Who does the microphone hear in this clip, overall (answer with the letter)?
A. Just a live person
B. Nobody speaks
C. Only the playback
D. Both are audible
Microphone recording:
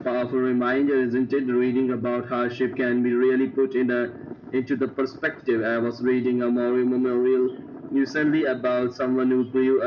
C